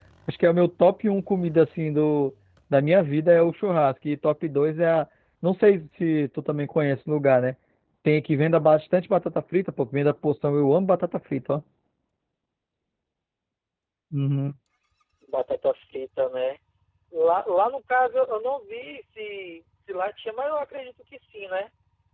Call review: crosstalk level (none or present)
none